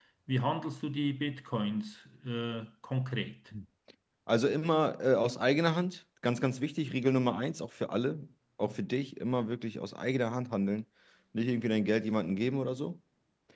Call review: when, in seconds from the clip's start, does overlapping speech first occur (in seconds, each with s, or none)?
none